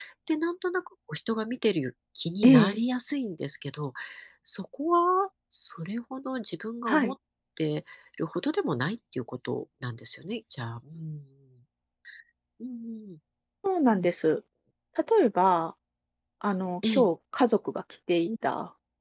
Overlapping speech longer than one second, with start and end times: none

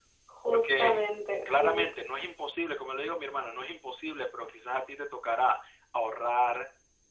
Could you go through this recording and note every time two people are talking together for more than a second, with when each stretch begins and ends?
none

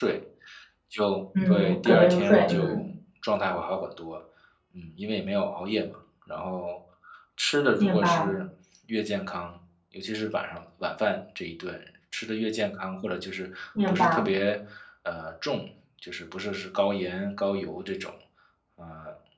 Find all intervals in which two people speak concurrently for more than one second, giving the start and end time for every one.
1.5-2.8

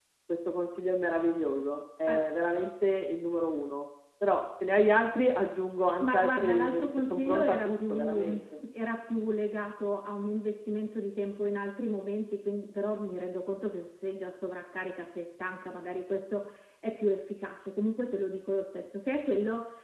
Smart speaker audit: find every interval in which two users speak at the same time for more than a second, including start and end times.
6.0-8.3

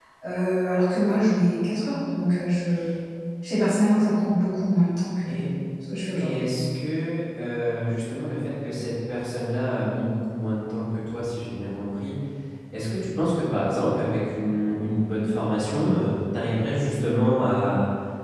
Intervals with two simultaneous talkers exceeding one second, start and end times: none

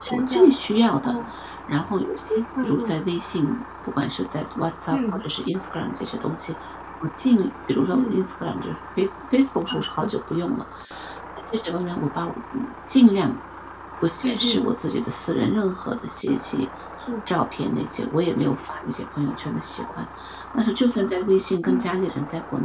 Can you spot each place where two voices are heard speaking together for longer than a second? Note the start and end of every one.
none

